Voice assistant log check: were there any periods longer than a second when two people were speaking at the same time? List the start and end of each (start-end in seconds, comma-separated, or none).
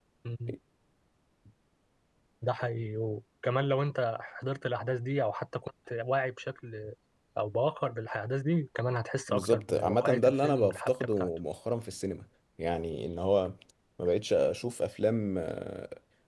9.3-11.3